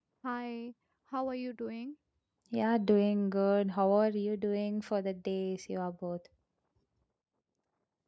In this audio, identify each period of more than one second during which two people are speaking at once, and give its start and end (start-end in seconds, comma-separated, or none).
none